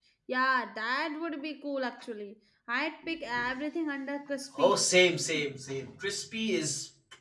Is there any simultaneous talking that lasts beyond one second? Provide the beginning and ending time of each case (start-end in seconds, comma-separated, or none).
none